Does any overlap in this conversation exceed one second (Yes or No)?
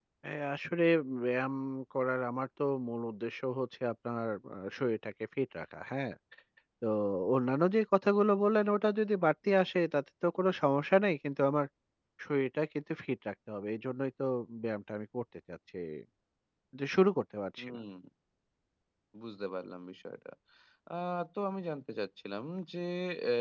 No